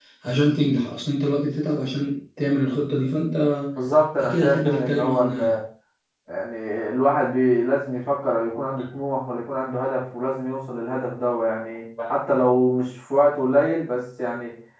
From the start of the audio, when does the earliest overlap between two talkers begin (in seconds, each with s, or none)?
4.2 s